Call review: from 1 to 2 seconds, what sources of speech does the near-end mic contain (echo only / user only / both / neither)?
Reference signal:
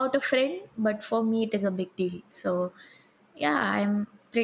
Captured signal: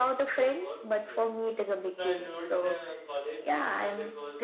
both